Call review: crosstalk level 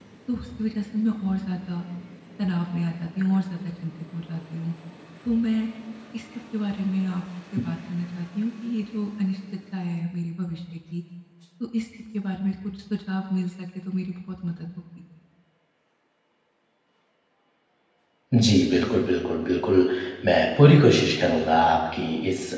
none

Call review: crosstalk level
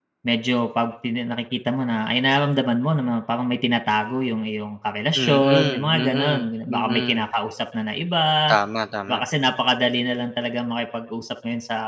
present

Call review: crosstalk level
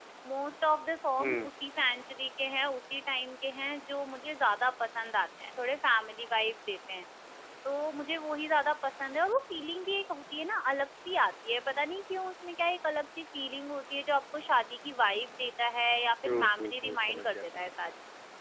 present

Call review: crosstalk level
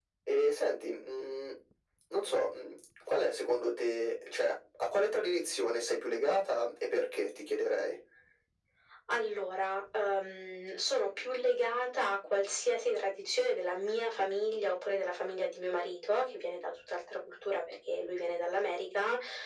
none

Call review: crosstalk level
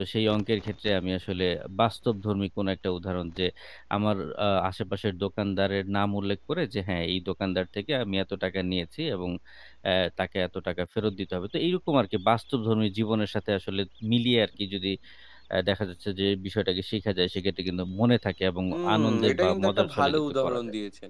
present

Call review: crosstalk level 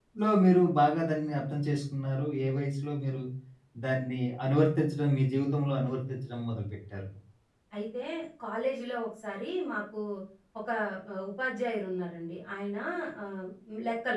none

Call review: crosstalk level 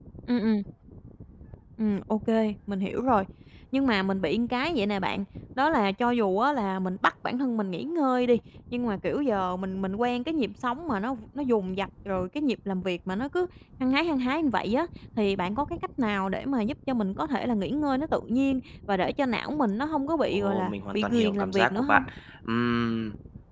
present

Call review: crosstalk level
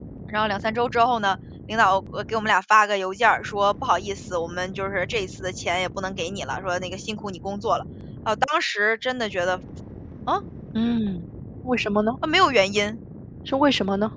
none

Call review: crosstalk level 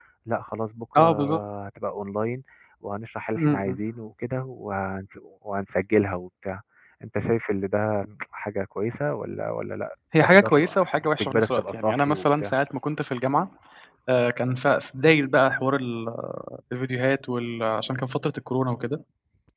present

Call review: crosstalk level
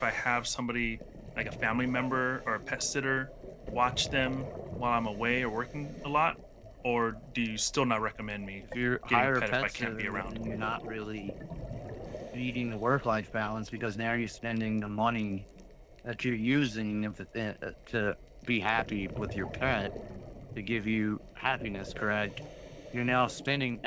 present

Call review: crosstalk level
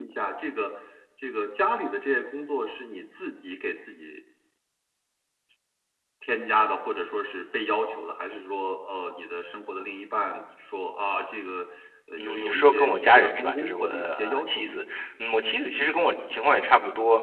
present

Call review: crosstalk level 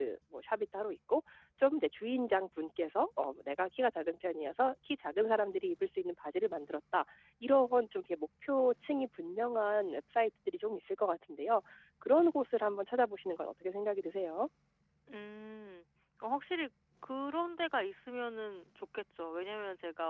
none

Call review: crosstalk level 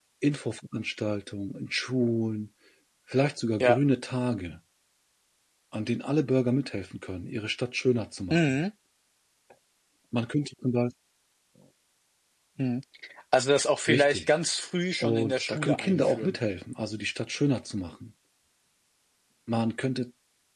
present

